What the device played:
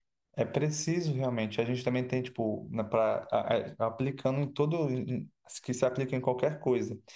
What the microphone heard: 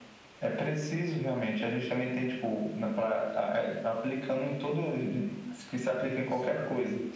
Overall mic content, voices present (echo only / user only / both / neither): both